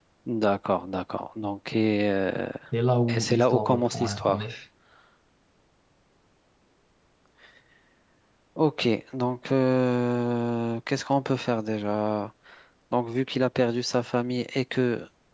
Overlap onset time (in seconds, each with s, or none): 3.1 s